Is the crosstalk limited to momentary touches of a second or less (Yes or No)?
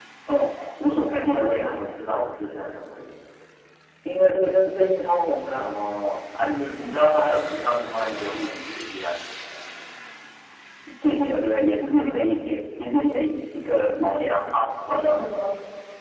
Yes